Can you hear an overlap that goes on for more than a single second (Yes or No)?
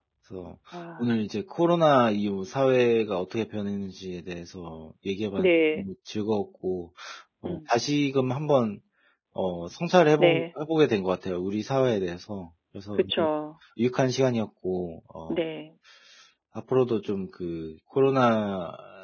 No